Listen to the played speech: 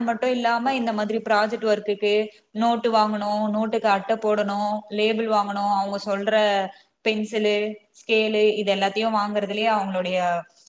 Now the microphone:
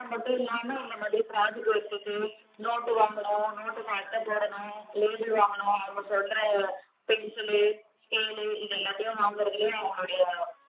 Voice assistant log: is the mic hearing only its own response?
Yes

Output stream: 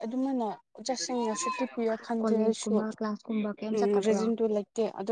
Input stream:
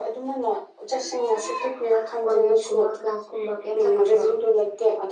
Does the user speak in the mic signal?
No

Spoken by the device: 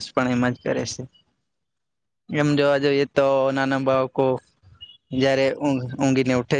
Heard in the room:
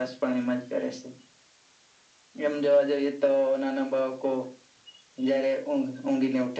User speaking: No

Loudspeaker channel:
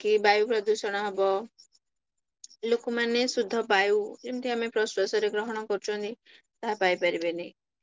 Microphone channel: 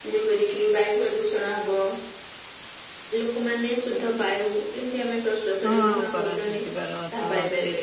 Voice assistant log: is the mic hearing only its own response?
No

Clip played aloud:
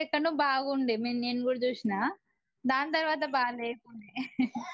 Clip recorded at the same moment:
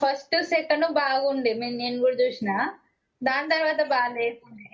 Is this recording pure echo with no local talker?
Yes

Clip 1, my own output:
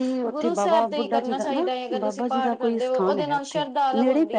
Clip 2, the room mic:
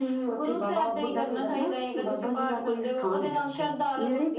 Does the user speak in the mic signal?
No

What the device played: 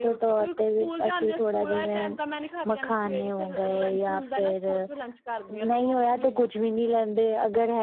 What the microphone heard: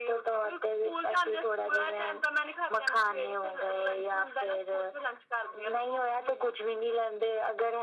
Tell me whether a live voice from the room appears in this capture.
No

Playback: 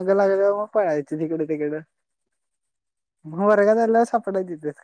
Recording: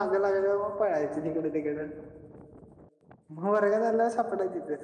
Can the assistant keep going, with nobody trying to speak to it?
Yes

